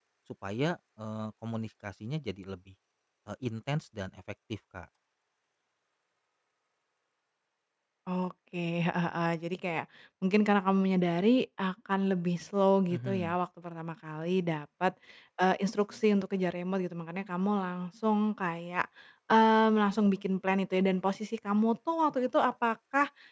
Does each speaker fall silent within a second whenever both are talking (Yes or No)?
Yes